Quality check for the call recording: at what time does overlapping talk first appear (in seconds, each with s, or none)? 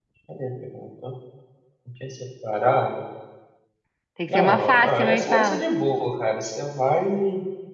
4.3 s